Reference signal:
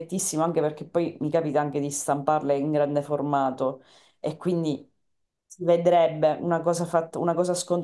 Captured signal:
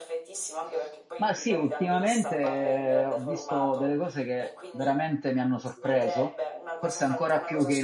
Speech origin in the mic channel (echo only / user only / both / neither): both